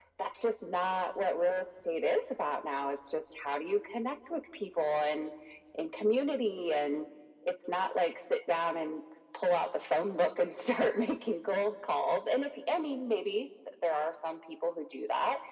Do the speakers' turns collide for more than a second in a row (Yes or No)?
No